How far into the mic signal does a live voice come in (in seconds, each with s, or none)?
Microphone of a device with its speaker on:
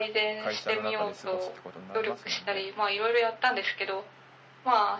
0.4 s